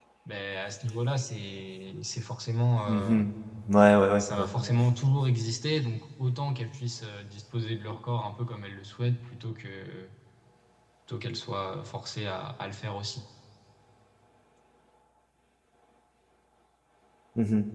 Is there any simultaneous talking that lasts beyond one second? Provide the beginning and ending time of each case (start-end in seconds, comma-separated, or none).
none